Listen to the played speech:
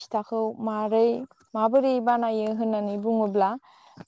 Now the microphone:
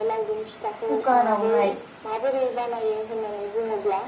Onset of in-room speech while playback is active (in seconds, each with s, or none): 0.8 s